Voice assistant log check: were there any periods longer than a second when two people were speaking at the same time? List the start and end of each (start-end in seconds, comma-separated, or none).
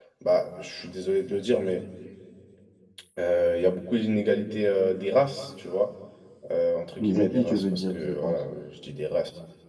7.0-8.4